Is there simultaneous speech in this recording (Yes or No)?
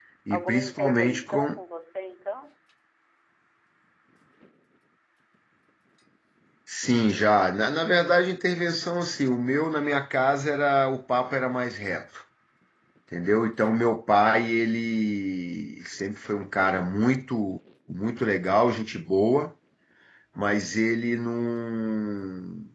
Yes